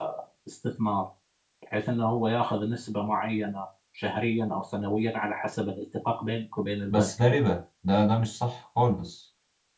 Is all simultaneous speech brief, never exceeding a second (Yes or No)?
Yes